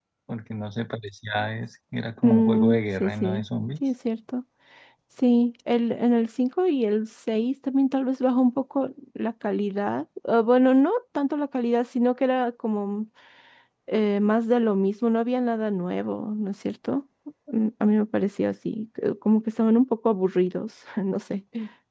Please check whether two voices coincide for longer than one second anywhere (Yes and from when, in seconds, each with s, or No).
Yes, from 2.2 s